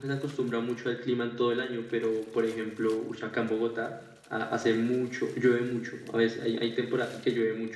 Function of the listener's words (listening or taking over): listening